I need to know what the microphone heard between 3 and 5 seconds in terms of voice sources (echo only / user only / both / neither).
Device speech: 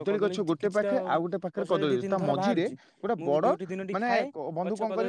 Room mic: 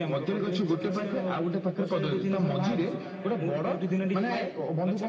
both